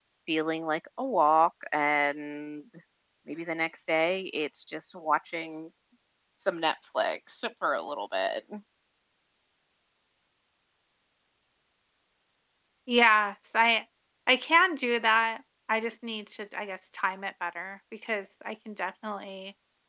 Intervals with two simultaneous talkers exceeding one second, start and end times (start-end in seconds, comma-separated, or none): none